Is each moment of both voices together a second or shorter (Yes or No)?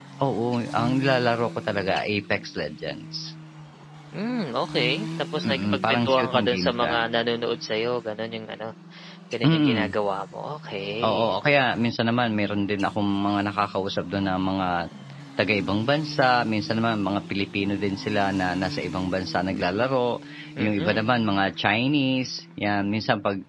No